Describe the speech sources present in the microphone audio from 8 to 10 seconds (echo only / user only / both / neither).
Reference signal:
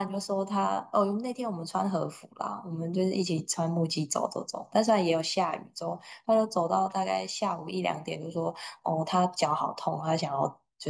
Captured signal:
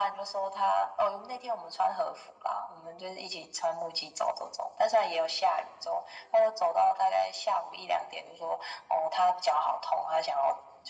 echo only